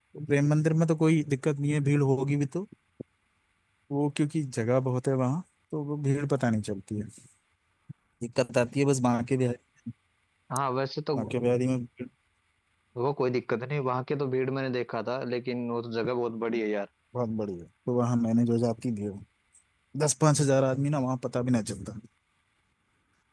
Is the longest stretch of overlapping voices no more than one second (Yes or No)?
Yes